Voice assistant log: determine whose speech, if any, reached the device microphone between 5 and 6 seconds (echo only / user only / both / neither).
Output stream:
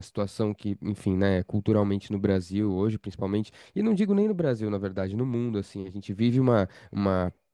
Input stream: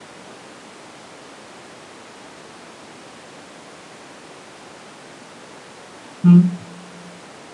neither